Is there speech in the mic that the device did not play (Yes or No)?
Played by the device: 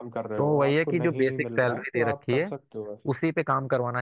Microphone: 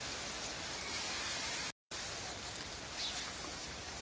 No